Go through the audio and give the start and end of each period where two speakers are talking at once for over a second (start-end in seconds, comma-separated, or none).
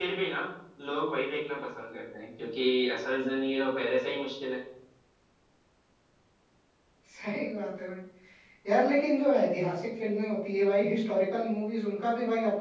none